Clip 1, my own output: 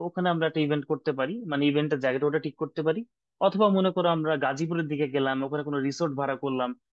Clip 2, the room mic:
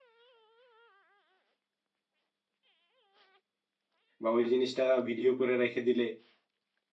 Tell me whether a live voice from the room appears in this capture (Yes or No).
Yes